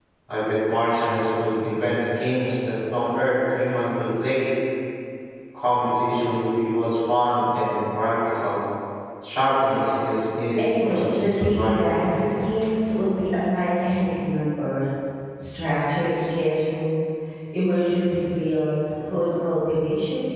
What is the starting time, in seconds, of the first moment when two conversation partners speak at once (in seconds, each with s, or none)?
10.6 s